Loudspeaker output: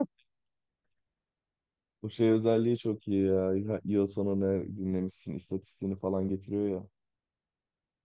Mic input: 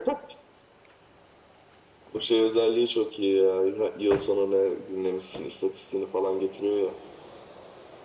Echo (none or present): present